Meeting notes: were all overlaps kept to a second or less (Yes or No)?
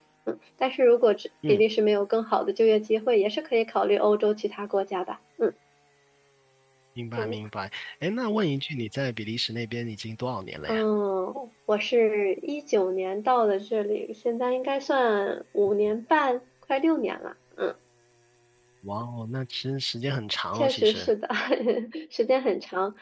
Yes